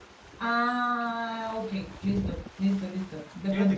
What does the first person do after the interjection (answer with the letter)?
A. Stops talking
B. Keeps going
A